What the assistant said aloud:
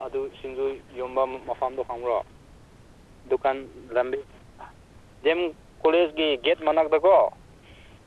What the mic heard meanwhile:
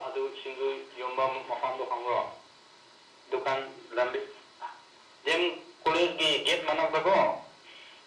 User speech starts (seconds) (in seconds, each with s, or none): none